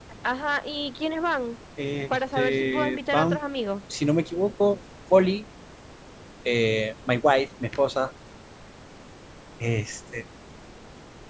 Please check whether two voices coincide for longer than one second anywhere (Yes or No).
Yes